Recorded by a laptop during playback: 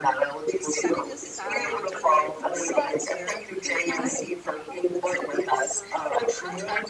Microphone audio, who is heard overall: both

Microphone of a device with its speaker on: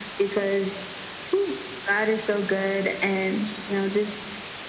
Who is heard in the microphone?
echo only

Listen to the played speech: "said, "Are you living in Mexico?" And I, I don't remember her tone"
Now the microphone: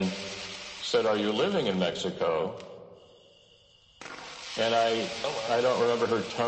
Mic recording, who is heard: both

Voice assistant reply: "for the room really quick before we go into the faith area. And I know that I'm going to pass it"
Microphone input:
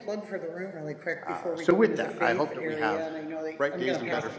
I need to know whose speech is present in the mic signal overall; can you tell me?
both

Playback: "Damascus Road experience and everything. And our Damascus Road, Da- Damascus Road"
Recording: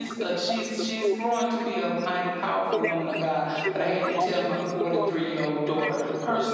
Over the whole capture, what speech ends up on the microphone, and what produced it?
both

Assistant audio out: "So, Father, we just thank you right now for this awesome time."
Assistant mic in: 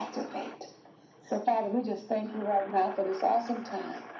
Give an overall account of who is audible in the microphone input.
echo only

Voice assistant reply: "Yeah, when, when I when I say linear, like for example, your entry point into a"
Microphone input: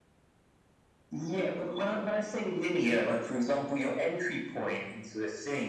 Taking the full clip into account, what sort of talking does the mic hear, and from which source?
echo only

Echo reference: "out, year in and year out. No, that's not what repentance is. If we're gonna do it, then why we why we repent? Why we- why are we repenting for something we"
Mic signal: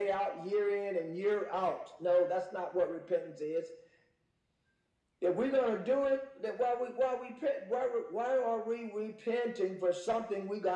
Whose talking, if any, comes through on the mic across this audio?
echo only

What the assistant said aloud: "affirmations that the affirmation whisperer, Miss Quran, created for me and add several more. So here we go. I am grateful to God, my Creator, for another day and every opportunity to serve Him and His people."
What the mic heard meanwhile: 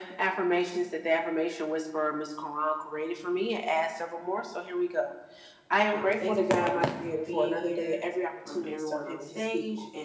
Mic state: both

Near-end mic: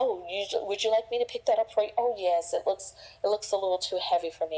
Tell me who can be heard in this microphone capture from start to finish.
echo only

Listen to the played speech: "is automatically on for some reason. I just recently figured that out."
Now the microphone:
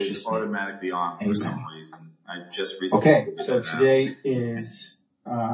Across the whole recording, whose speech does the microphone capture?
both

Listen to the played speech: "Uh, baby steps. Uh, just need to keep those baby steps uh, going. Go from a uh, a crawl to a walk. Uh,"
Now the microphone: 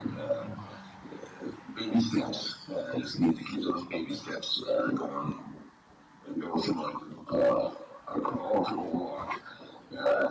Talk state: echo only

